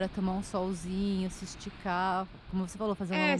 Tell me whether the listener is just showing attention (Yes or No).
No